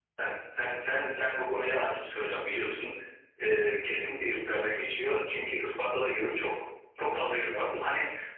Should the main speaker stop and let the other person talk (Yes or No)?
No